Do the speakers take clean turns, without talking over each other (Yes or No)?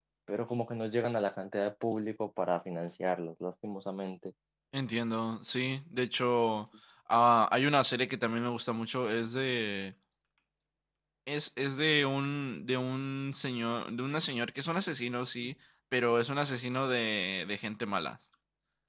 Yes